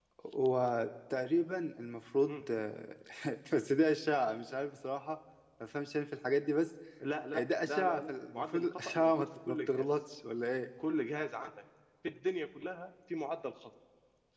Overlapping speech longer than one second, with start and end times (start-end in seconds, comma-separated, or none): 7.3-9.9